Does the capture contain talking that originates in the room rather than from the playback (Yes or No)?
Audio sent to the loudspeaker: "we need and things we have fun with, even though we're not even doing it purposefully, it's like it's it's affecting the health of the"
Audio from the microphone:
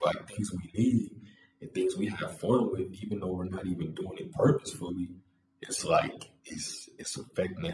No